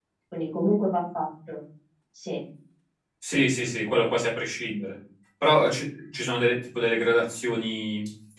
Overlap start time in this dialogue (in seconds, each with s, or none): none